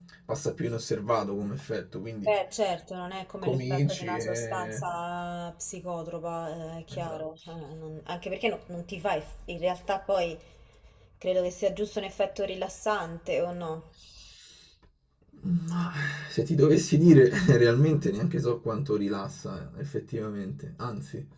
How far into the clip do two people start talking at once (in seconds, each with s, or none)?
3.4 s